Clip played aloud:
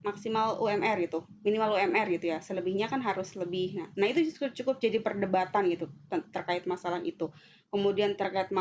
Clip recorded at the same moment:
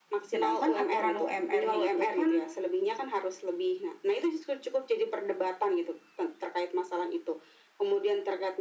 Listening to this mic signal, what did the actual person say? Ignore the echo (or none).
sedangkan aturan UMR-nya itu kan